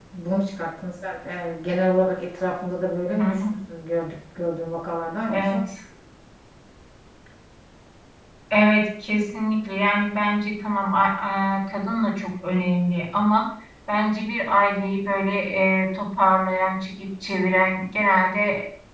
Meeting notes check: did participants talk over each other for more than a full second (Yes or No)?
No